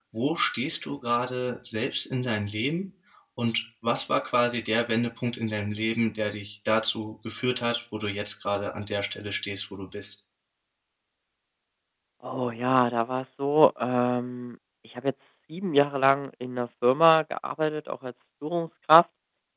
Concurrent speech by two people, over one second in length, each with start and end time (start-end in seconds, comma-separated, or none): none